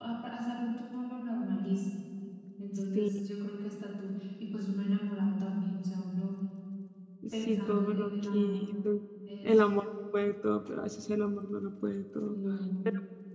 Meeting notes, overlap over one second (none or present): present